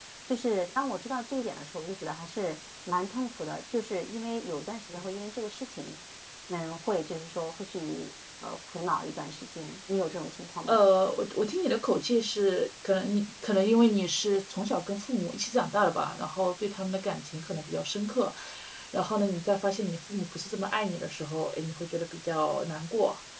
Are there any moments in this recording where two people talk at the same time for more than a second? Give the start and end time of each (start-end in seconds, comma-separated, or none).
none